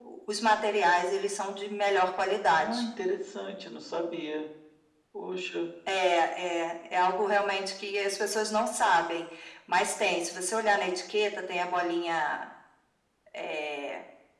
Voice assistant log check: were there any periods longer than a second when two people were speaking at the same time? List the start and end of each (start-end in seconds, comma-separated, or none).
none